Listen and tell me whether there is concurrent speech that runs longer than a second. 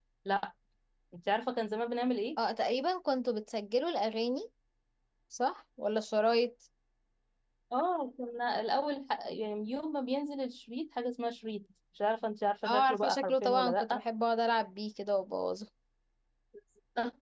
Yes, from 12.6 s

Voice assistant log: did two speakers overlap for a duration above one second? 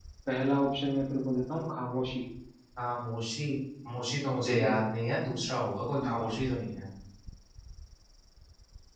No

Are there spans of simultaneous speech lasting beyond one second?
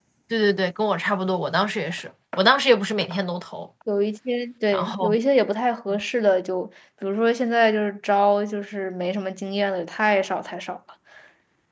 No

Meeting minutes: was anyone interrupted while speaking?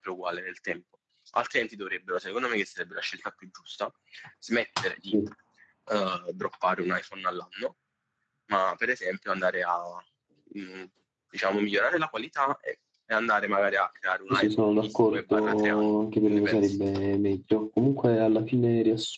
Yes, from 14.3 s

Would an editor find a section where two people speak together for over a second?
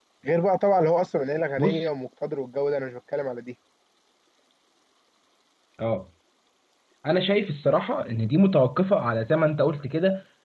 No

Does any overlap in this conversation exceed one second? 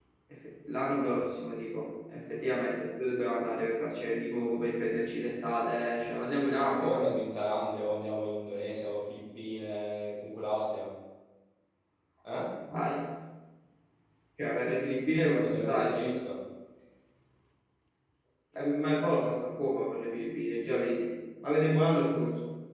No

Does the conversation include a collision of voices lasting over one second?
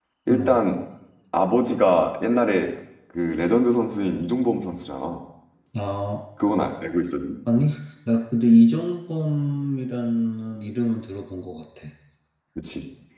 No

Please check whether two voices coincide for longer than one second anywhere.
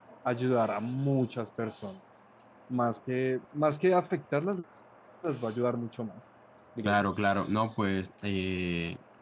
No

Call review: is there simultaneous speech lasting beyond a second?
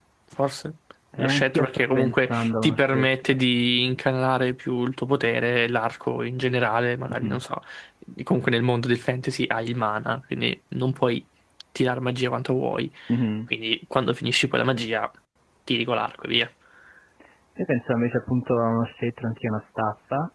Yes, from 1.2 s

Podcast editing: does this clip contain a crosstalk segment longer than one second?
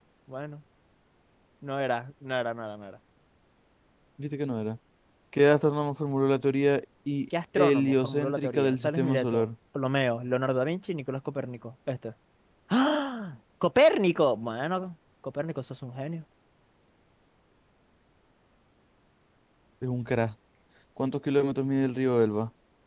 Yes, from 7.6 s

